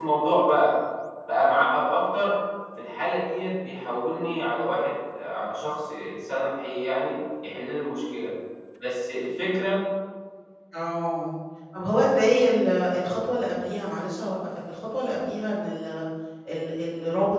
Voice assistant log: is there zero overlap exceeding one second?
Yes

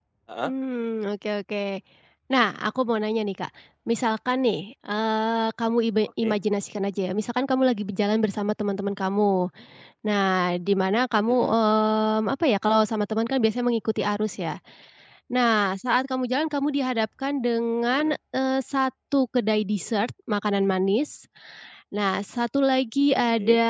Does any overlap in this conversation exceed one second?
No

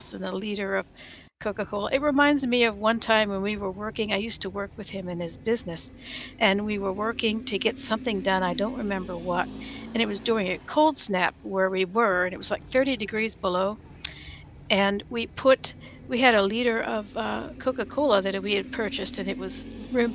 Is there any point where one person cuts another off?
No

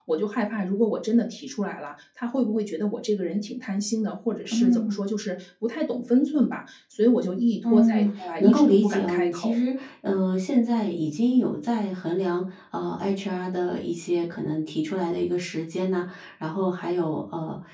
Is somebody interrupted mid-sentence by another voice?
Yes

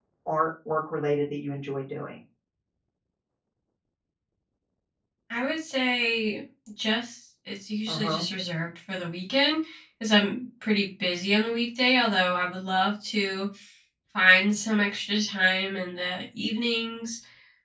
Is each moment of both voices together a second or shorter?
Yes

